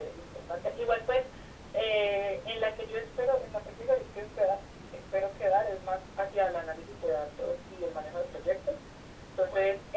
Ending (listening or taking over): listening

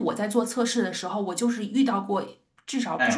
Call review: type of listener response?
listening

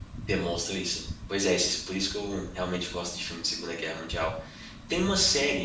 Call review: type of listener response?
listening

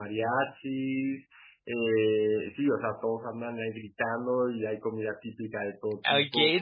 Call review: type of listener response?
taking over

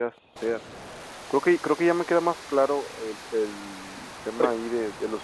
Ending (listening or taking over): listening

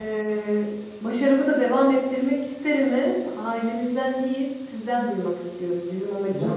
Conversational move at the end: taking over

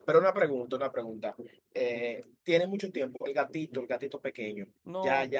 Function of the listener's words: taking over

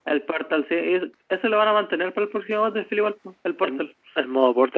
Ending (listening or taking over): taking over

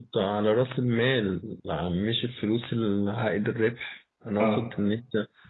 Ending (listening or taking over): listening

